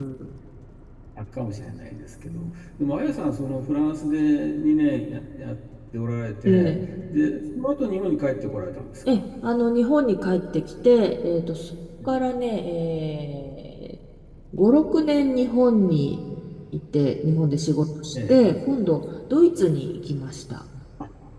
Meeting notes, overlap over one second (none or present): none